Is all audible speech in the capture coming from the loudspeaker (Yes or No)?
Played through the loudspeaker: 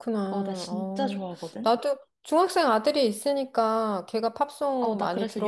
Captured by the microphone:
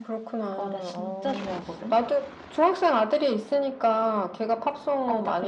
Yes